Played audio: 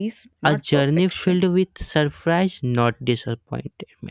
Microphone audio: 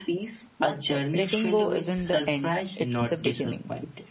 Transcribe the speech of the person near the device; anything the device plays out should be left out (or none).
Letting go isn't the end, it's the beginning.